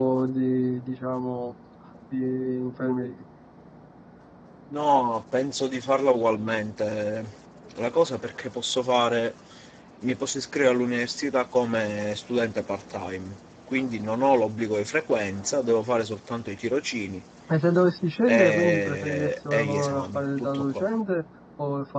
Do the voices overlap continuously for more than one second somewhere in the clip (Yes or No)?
Yes